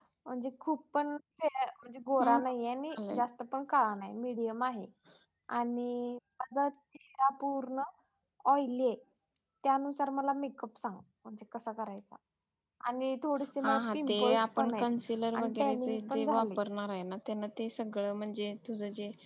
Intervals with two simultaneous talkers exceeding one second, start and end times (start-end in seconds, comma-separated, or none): 13.6-14.9, 15.4-16.6